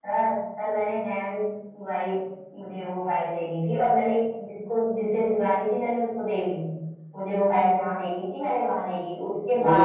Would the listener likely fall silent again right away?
No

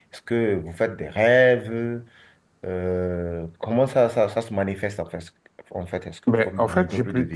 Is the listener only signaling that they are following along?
No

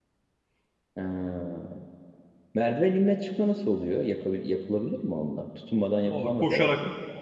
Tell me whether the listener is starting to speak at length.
Yes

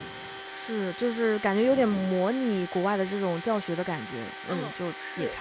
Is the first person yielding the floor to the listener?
Yes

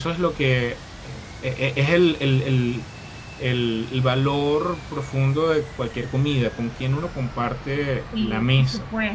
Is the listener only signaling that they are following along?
No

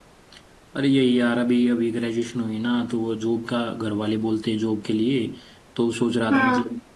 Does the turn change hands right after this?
No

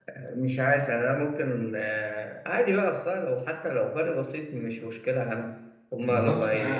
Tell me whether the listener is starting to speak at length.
Yes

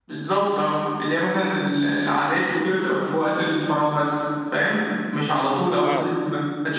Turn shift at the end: No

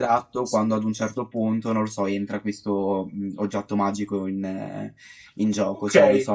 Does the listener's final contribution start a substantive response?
Yes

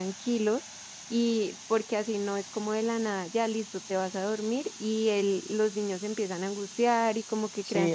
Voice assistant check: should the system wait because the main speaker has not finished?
No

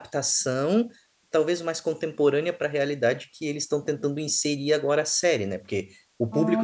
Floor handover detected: No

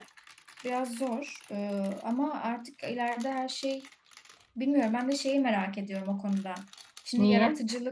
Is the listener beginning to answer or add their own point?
No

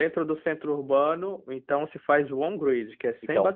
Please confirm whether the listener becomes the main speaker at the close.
Yes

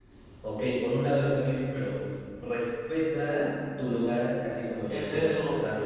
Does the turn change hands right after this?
Yes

